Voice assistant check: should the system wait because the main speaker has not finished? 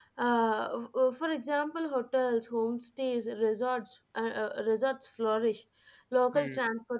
Yes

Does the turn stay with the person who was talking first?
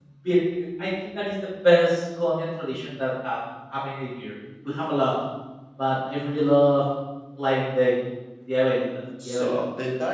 No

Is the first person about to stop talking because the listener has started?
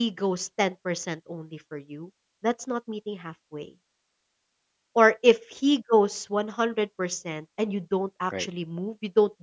No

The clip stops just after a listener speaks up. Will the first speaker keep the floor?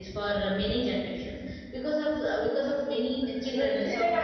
Yes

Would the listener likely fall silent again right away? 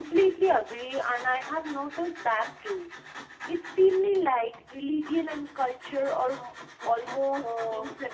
No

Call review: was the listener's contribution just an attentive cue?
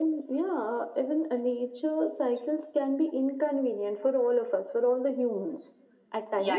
No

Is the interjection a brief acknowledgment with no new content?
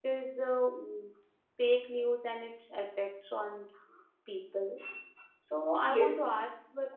Yes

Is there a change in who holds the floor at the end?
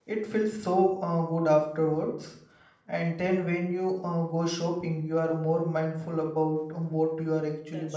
Yes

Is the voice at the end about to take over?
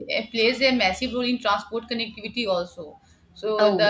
No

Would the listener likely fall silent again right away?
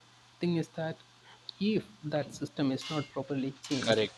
No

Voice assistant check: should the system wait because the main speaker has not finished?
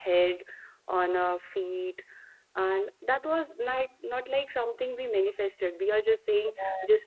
Yes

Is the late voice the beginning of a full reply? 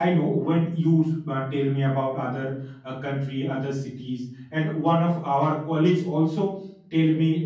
No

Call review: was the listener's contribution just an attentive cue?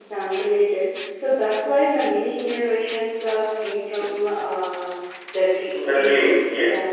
No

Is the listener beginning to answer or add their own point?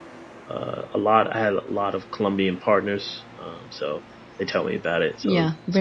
Yes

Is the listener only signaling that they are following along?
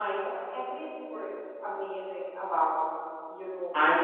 No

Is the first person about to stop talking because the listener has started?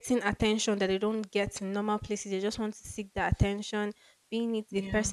No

